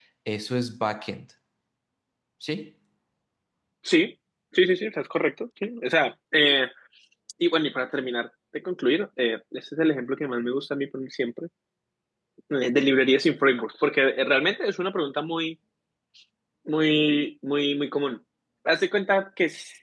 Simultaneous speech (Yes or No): No